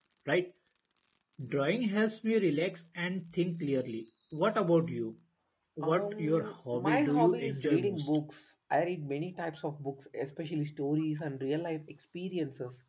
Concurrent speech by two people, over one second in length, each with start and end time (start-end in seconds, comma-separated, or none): 5.8-8.1